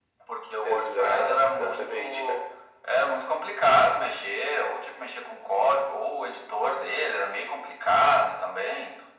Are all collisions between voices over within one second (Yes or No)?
No